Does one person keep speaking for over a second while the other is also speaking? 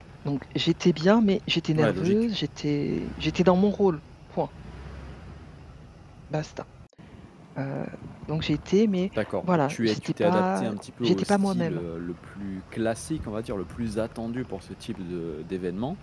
Yes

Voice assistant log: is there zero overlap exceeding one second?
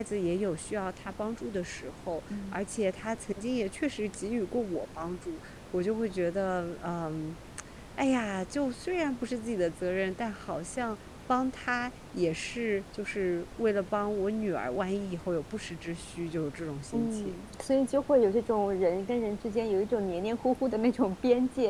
Yes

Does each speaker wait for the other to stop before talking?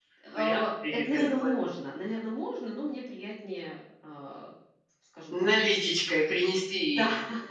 No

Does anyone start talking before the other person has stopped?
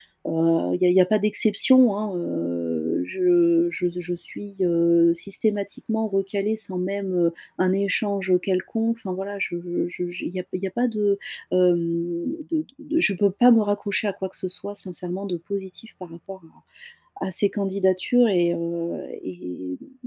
No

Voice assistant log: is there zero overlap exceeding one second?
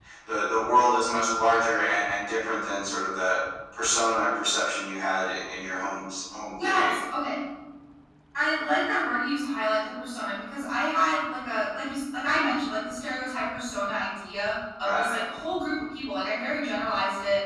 Yes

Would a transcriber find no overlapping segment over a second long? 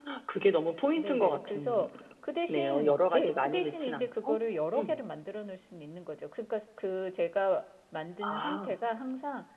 No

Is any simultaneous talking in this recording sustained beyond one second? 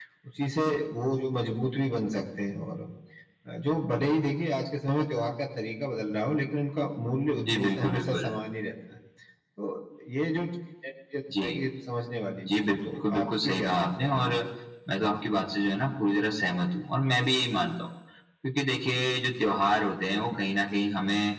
Yes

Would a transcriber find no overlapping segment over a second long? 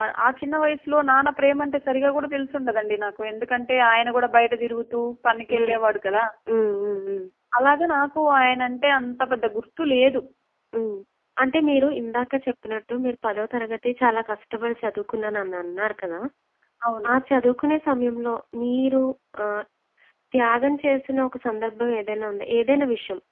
Yes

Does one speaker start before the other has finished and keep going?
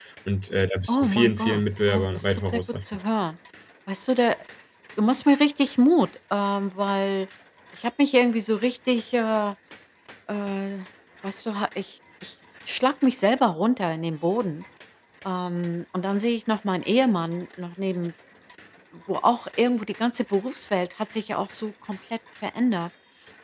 Yes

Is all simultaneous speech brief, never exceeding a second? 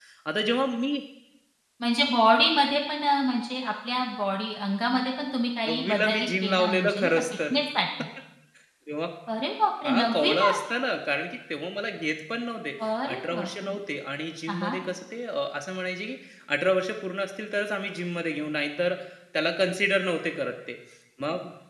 No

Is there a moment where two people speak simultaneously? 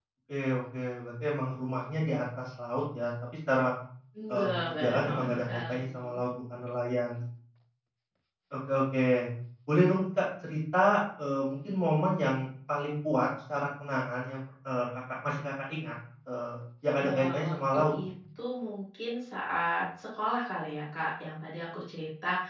Yes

